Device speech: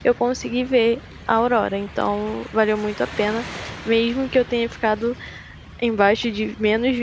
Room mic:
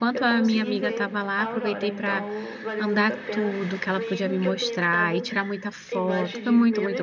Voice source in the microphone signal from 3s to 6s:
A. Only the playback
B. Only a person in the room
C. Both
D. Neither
C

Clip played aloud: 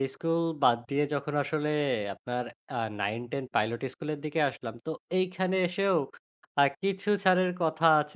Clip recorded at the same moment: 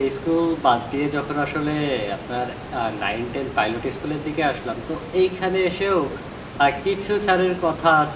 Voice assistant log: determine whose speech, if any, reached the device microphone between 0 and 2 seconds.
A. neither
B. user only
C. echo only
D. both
C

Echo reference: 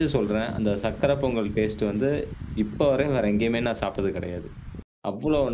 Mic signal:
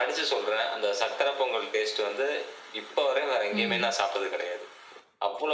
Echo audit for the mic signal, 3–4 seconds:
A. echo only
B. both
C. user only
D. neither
B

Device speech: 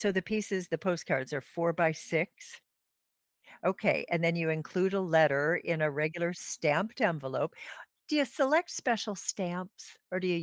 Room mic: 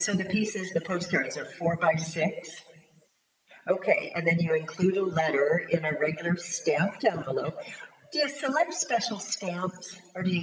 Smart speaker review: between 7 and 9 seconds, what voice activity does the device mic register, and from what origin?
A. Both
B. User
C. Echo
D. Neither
C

